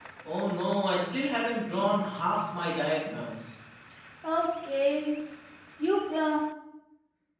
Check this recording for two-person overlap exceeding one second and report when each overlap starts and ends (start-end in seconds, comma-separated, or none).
none